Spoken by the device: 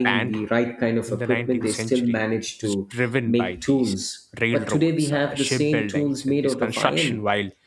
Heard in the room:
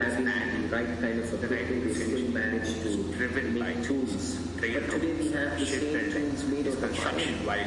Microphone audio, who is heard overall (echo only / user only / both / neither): echo only